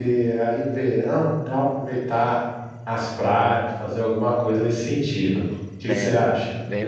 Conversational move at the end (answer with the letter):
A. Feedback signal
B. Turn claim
B